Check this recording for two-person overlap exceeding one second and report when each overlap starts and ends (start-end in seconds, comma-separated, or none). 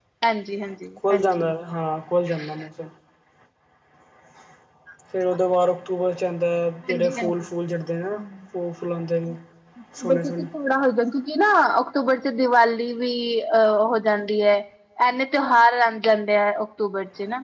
none